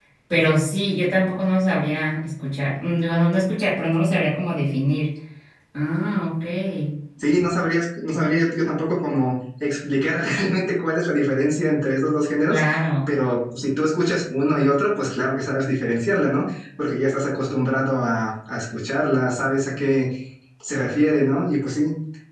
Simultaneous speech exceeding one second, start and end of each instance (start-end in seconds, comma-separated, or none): none